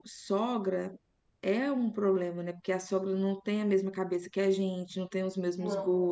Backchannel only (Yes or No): Yes